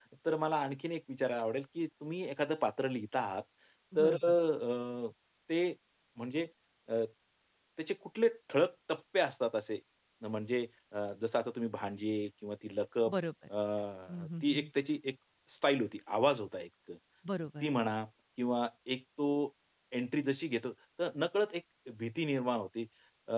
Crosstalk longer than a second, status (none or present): none